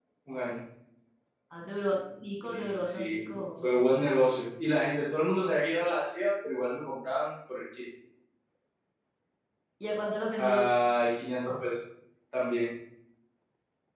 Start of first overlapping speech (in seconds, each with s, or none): 2.4 s